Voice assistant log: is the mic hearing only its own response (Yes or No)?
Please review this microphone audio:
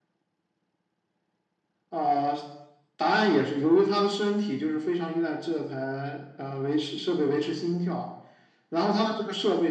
Yes